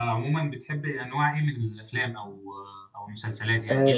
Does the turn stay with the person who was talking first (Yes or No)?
No